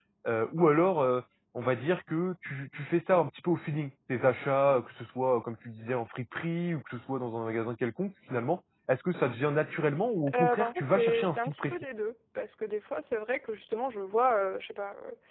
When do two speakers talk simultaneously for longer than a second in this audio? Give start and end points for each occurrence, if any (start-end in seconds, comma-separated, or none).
10.3-11.7